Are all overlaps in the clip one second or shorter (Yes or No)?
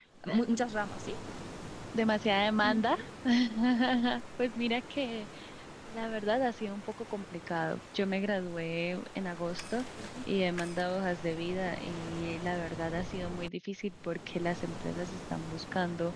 Yes